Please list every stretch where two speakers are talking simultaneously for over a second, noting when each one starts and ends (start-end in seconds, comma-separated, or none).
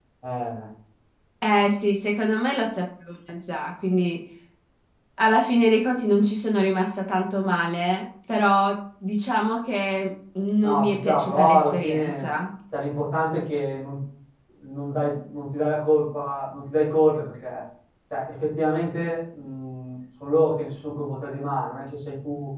10.6-12.3